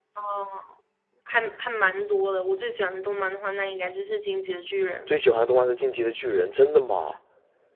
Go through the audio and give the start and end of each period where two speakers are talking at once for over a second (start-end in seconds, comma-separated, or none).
none